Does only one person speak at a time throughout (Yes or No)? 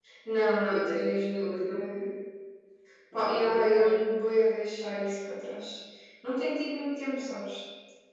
No